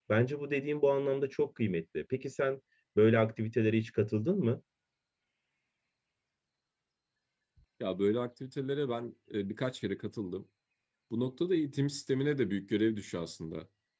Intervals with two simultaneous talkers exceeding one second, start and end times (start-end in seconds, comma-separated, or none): none